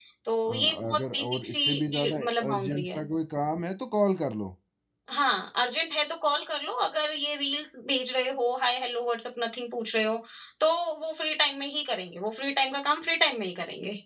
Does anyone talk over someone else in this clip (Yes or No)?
Yes